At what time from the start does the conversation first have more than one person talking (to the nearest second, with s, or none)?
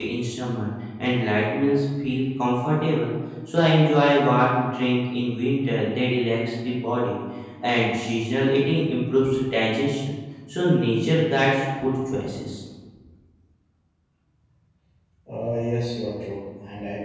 none